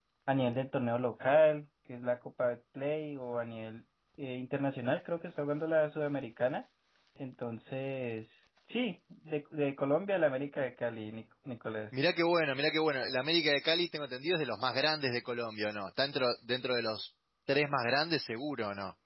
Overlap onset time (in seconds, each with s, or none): none